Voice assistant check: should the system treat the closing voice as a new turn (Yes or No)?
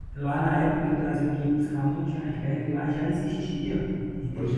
No